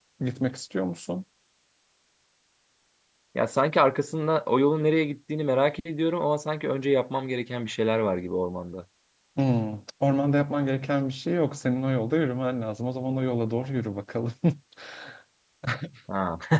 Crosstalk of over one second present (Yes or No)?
No